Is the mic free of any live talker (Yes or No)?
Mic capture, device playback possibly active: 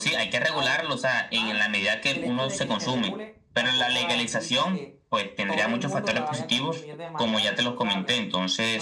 No